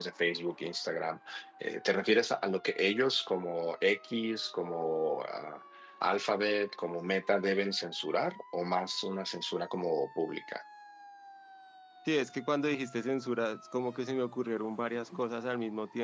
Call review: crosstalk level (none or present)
none